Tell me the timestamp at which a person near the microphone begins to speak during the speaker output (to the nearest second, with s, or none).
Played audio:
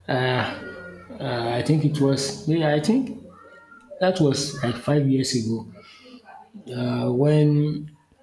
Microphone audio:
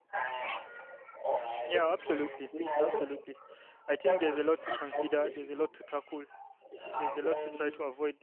2 s